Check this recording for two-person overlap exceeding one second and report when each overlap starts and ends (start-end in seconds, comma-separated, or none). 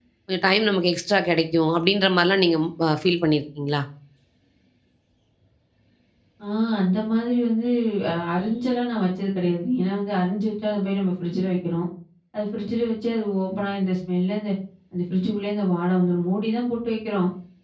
none